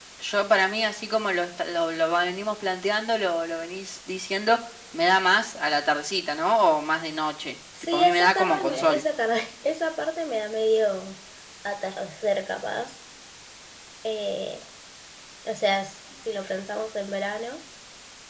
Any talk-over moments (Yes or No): Yes